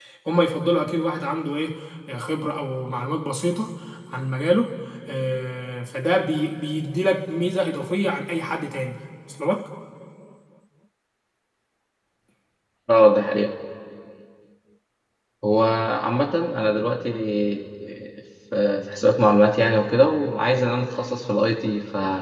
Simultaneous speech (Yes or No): No